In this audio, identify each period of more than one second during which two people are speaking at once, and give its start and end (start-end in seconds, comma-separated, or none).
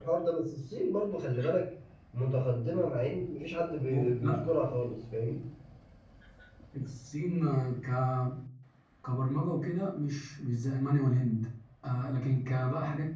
none